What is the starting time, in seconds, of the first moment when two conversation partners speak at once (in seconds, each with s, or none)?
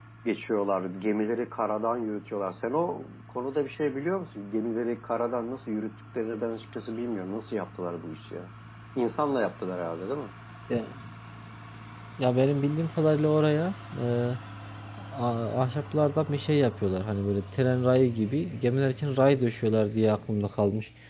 none